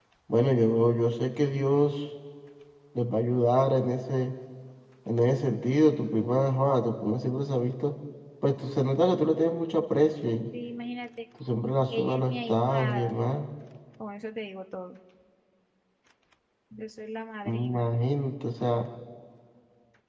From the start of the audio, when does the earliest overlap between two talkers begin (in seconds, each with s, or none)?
11.9 s